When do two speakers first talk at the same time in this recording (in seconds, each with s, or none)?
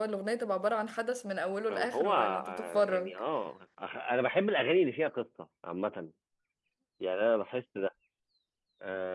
1.7 s